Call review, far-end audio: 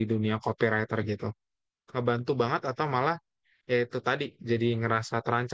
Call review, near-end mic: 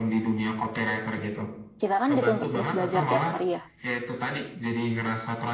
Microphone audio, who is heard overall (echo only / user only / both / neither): both